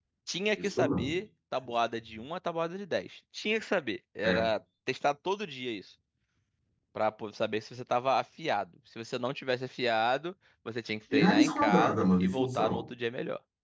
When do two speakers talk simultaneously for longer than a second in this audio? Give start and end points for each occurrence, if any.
11.1-12.8

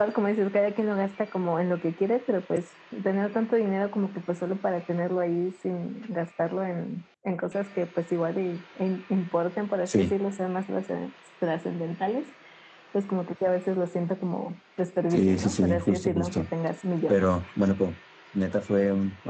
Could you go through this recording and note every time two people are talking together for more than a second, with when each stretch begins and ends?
15.1-16.4

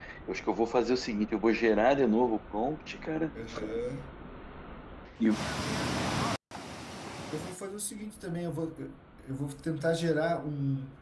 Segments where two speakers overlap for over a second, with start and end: none

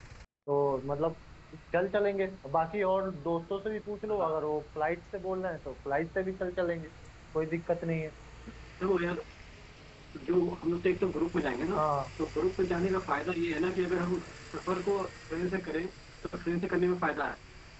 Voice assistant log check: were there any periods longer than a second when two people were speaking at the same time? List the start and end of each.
none

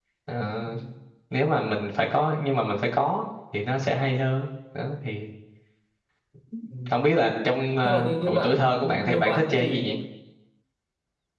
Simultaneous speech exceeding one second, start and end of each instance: 7.8-9.9

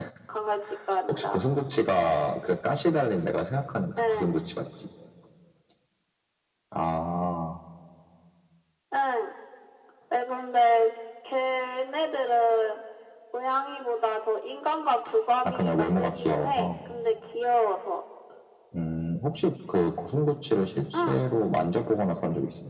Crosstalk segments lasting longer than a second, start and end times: 15.4-16.7

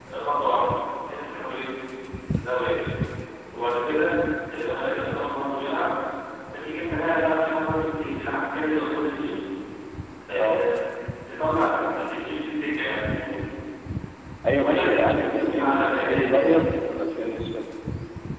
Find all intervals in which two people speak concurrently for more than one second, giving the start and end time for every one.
14.6-16.6

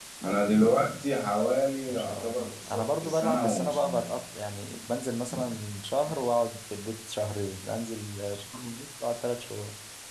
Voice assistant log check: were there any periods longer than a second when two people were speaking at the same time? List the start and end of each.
1.9-4.1

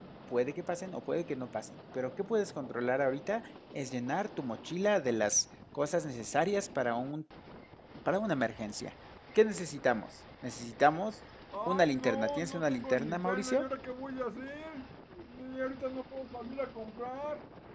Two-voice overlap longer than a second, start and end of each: 11.7-13.7

